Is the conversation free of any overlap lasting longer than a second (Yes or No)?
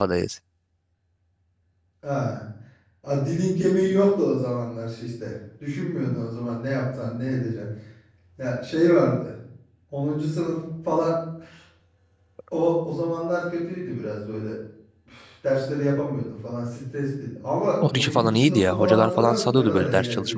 No